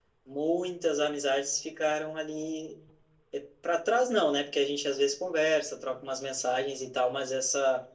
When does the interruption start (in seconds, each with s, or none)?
none